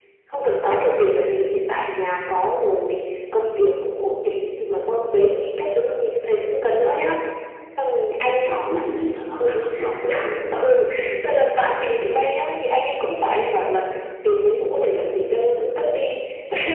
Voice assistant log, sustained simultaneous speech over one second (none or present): present